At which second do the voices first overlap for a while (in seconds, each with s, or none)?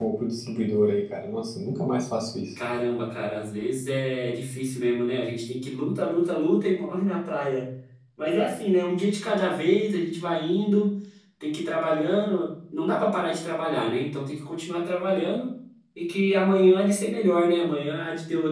none